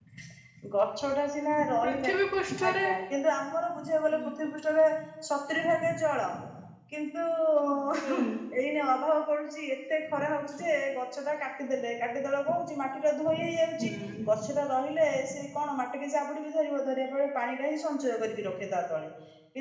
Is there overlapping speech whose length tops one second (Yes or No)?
No